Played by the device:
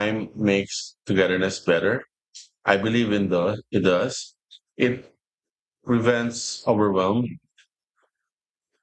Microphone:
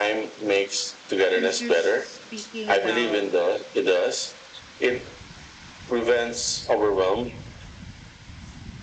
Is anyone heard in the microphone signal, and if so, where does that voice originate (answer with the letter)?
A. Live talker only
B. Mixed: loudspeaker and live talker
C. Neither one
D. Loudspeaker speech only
B